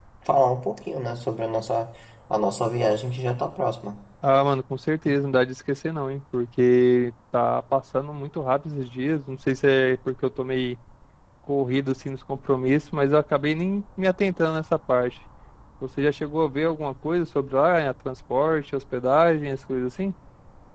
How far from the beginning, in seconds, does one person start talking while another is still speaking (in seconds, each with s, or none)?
none